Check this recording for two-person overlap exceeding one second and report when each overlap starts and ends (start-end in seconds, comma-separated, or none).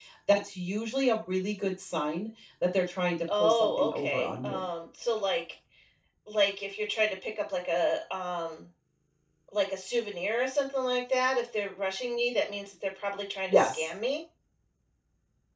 3.4-4.7